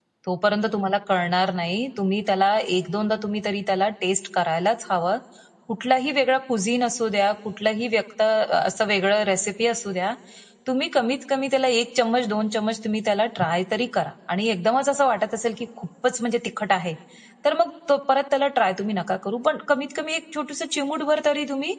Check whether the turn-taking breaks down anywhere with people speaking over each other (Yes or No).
No